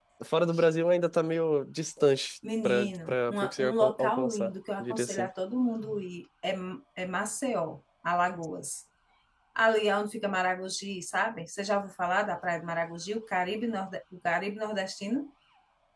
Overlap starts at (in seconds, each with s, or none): 2.4 s